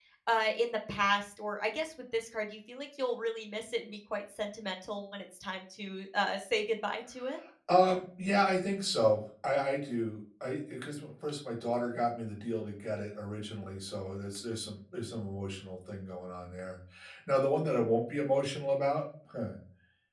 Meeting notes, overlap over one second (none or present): none